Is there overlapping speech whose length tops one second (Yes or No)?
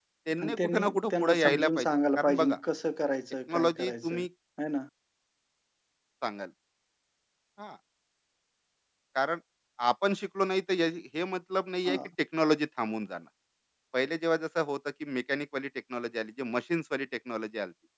Yes